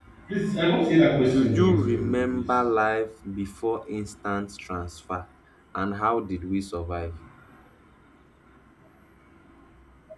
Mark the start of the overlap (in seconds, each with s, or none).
1.2 s